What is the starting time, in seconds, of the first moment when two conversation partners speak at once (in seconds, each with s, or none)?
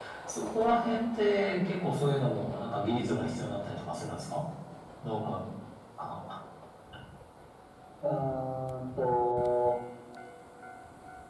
none